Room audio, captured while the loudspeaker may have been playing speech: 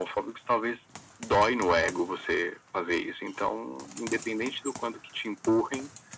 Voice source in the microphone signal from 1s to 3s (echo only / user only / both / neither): echo only